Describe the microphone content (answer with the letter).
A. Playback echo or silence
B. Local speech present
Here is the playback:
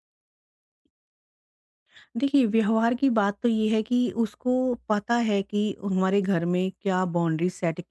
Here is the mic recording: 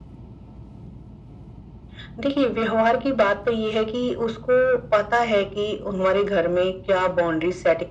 A